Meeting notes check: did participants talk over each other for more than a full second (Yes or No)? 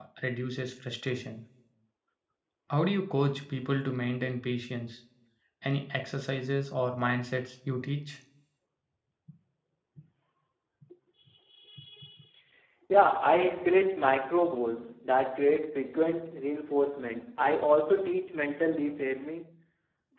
No